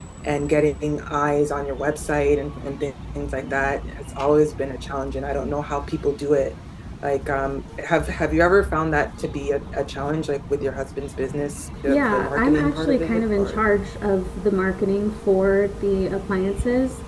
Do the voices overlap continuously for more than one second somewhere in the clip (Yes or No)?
Yes